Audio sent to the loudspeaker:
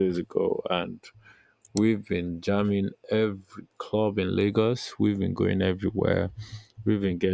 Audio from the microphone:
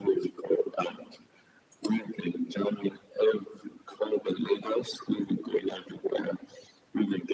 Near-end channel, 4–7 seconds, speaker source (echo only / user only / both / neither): echo only